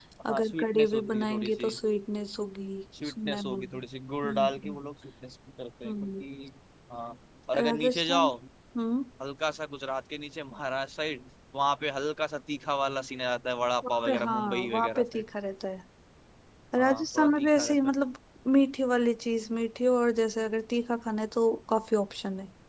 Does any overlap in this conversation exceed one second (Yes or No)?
Yes